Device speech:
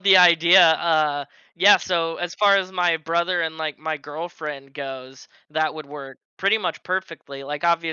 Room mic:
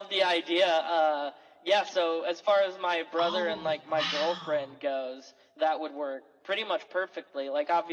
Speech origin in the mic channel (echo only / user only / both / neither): both